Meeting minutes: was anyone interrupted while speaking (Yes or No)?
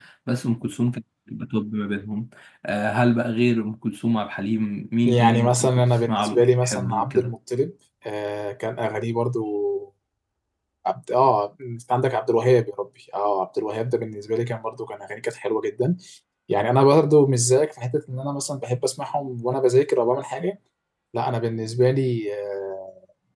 Yes